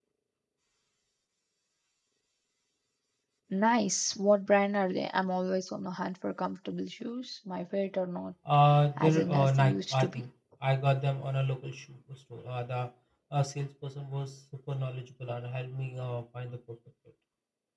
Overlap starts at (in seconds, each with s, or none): 9.0 s